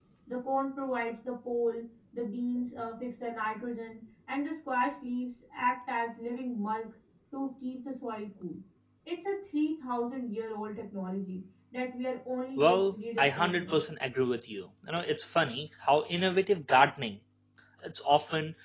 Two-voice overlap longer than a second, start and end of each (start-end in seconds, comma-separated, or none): 12.6-13.8